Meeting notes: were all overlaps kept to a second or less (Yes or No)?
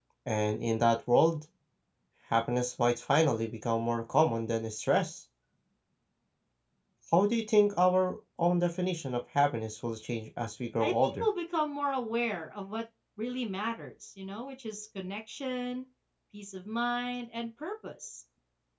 Yes